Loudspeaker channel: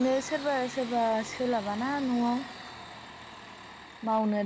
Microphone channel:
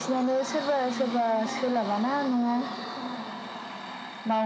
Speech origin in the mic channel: both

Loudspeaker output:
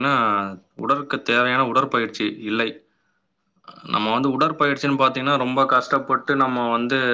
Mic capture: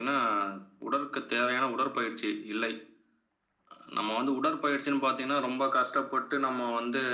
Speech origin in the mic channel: echo only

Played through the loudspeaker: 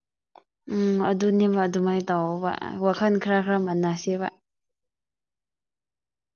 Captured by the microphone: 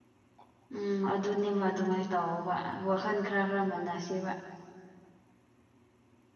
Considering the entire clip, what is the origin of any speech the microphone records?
echo only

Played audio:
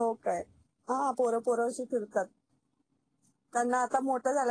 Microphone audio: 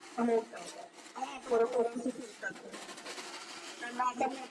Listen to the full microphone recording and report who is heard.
echo only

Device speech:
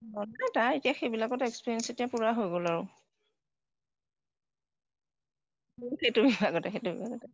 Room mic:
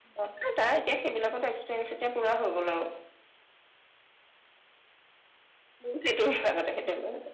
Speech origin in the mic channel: echo only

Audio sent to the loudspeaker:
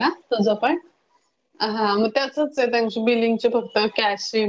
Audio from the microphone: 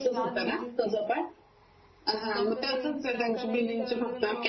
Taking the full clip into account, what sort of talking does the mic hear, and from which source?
both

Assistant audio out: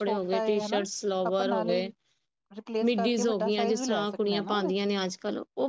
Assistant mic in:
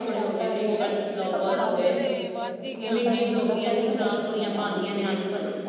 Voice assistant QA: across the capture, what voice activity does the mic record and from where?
both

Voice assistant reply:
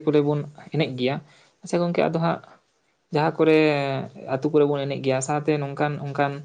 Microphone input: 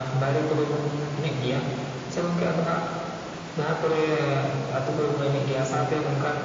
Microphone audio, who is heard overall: echo only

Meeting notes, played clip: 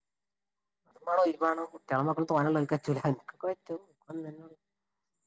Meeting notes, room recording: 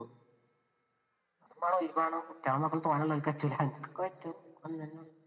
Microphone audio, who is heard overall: echo only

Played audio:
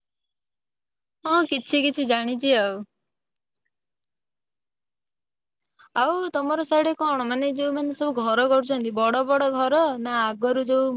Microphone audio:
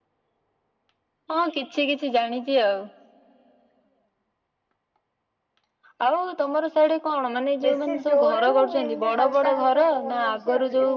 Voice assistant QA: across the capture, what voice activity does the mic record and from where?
both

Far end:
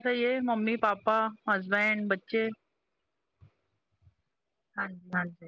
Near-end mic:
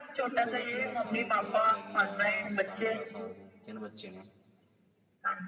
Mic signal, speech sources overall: both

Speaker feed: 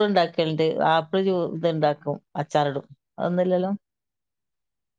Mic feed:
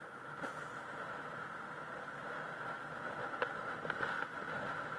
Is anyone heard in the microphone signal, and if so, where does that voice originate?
neither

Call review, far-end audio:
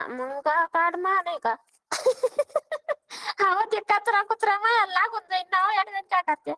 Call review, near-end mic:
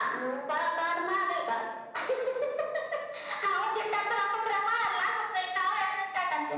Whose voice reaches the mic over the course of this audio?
echo only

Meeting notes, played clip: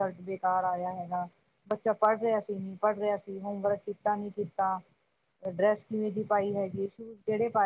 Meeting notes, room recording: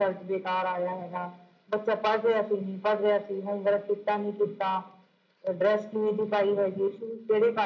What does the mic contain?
echo only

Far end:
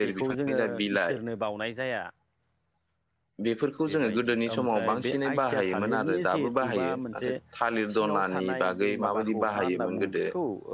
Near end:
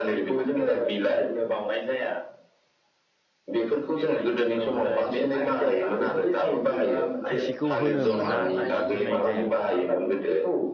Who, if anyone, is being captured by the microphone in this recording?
both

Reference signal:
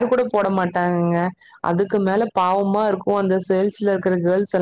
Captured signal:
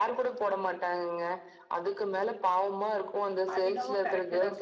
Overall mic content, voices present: both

